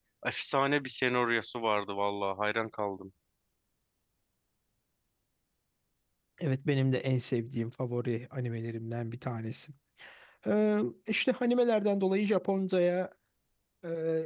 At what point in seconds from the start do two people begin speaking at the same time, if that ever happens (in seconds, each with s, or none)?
none